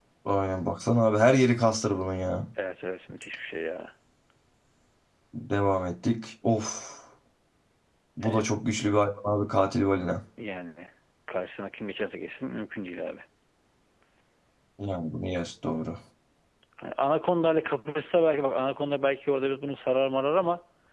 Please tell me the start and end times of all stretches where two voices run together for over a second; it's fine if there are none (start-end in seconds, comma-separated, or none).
none